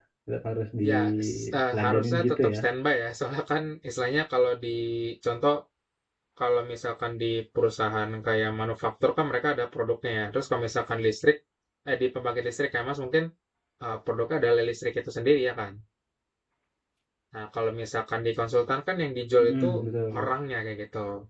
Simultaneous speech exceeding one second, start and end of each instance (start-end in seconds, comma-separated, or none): 0.9-2.6